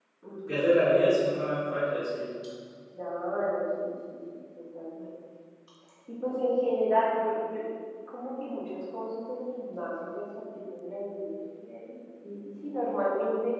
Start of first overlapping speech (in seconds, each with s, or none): none